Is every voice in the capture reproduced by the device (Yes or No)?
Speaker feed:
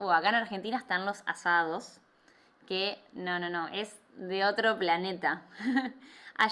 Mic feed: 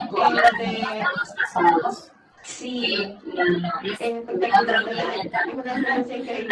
No